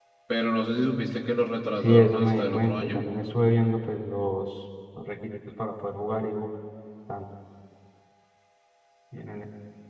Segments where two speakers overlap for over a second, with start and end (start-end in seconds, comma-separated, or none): 1.8-3.1